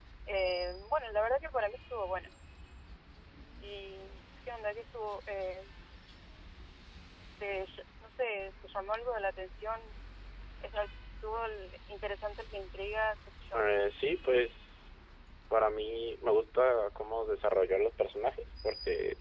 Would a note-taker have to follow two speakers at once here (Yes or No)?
No